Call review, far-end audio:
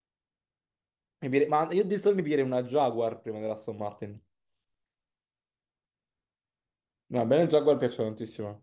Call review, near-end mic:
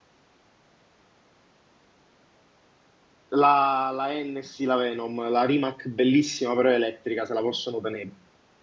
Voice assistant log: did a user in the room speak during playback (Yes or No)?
Yes